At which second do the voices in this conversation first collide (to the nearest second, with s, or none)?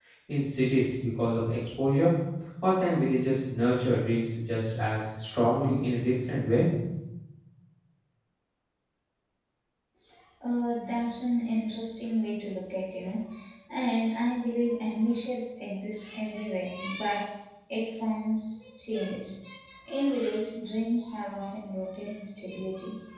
none